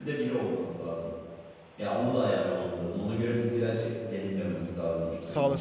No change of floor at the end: No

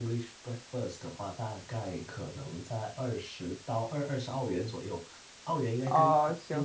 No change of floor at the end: Yes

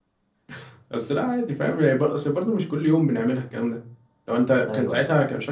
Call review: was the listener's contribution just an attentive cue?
Yes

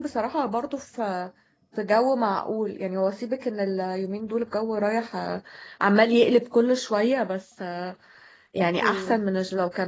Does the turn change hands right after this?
No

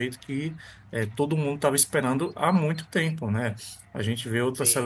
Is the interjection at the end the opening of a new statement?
No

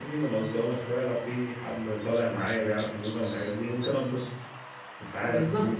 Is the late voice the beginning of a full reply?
Yes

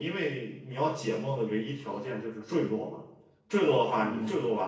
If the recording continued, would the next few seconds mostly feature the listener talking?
No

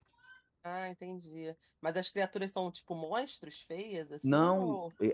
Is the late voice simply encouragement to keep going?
No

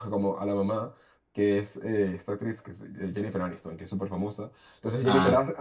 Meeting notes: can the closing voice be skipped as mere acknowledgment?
Yes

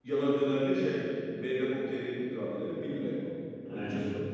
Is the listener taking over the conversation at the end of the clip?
No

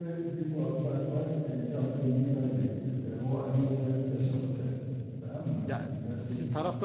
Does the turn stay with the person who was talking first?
No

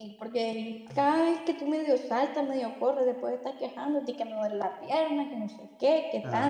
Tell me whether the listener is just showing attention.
No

